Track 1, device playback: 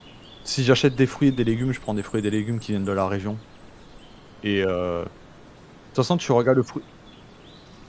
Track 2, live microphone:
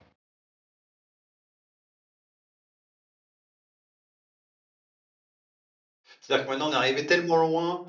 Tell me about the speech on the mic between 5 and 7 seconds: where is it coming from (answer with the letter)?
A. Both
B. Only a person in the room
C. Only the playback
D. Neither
B